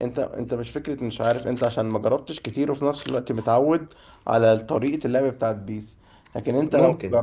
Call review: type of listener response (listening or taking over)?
listening